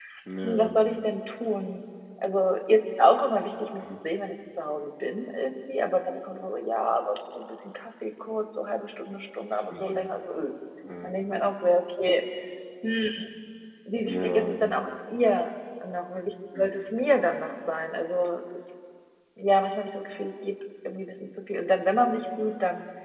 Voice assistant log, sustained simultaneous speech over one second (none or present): none